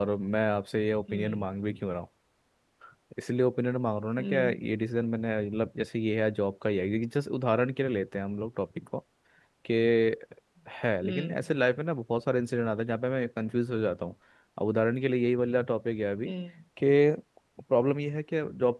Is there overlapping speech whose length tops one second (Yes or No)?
No